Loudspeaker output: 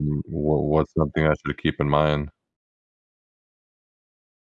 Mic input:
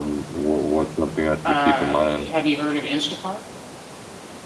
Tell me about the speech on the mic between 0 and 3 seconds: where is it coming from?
both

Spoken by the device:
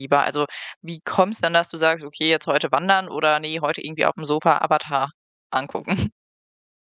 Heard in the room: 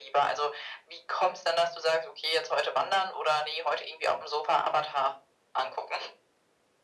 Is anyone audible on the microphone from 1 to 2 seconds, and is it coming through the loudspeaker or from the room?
echo only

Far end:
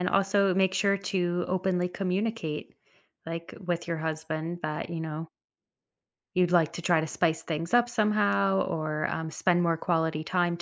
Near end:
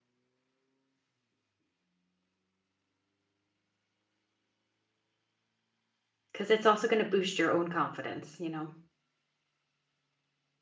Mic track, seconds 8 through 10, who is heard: user only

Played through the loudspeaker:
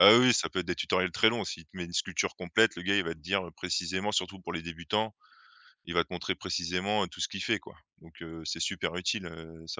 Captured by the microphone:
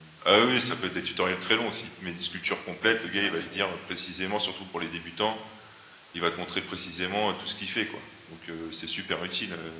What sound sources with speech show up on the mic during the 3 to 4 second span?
both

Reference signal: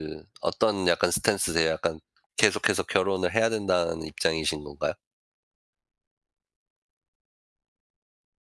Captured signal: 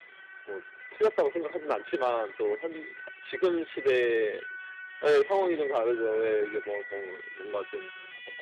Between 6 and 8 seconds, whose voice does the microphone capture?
user only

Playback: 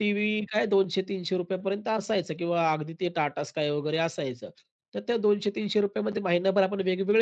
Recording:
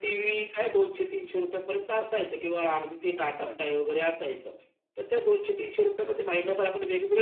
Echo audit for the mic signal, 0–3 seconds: echo only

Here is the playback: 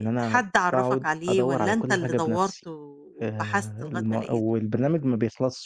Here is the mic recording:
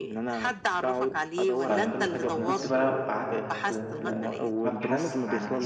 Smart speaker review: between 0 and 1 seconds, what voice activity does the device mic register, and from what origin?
echo only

